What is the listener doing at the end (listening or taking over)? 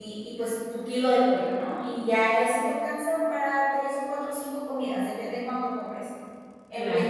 taking over